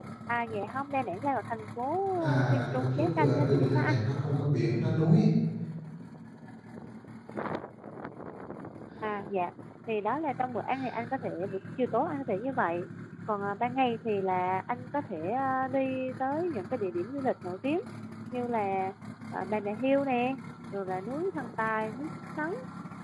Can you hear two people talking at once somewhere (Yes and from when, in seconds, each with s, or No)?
Yes, from 2.2 s